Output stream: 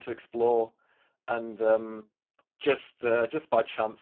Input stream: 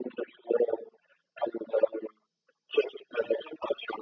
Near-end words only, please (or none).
none